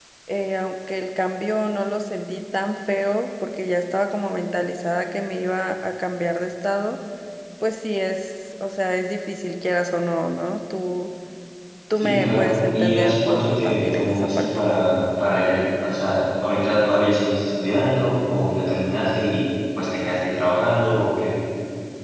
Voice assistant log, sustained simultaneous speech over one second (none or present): present